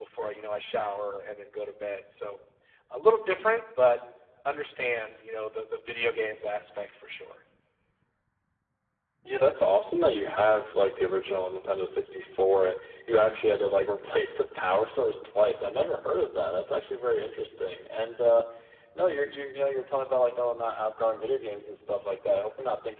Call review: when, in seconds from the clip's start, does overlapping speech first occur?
none

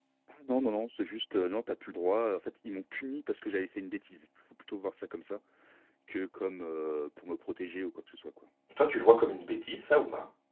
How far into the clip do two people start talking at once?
none

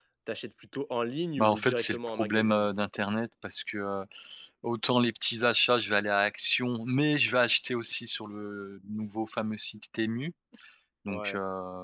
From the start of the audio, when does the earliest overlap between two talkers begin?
1.4 s

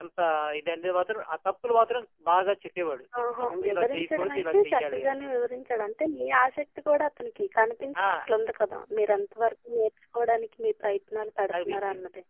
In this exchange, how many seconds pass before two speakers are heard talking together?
3.2 s

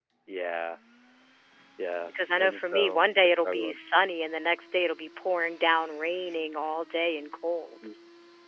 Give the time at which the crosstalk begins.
2.1 s

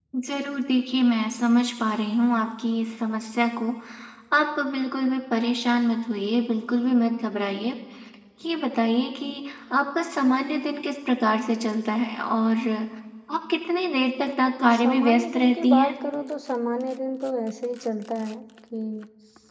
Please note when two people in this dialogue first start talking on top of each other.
14.7 s

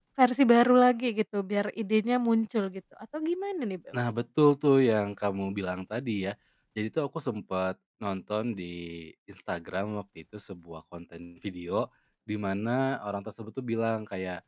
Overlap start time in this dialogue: none

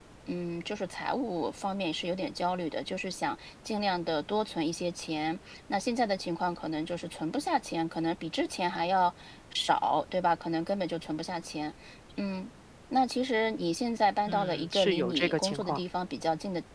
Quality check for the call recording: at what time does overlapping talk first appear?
14.3 s

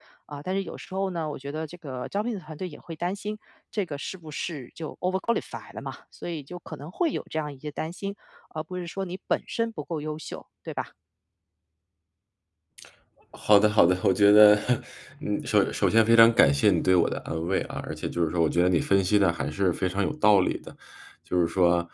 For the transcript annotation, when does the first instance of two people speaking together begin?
none

